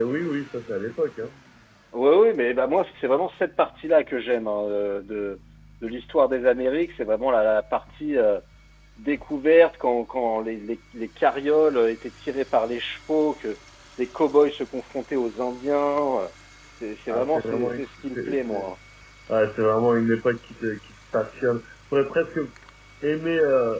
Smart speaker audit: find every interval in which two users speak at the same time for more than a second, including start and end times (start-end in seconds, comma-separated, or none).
17.1-18.6